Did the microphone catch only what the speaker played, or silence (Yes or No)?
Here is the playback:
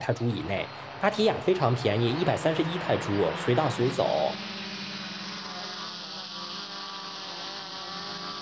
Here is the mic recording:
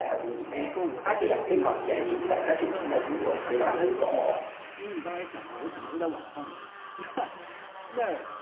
No